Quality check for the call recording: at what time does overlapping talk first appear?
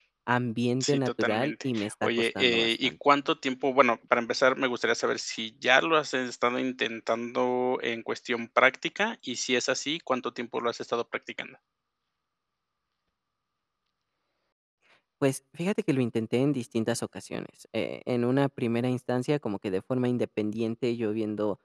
0.8 s

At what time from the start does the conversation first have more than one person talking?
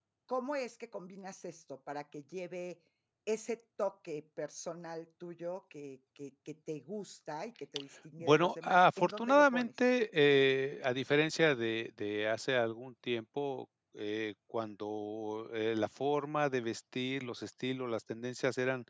8.2 s

